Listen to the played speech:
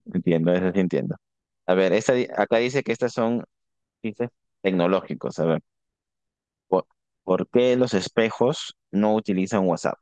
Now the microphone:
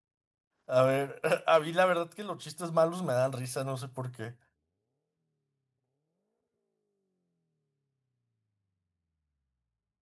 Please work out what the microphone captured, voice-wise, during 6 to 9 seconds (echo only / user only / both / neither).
neither